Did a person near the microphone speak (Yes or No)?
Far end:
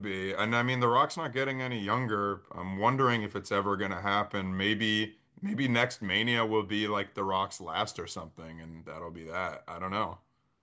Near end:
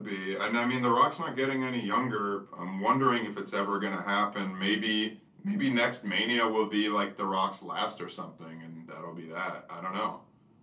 No